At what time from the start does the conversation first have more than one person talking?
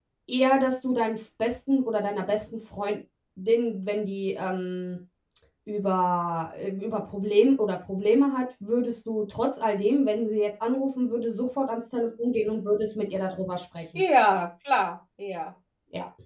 none

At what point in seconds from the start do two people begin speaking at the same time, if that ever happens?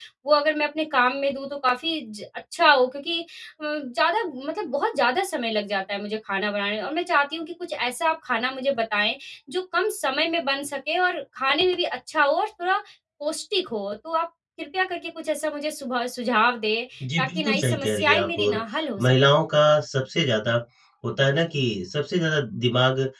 17.2 s

